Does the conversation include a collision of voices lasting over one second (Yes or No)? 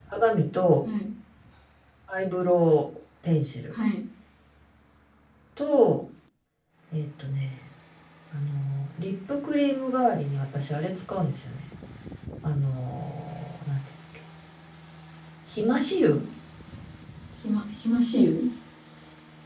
No